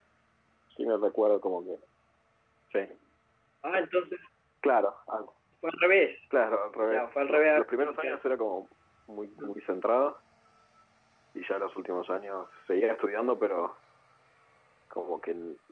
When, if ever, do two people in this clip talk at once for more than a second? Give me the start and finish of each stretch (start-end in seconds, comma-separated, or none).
6.8-8.3